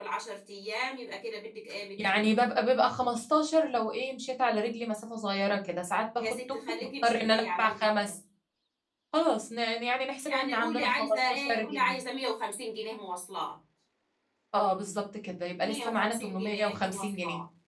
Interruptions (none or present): present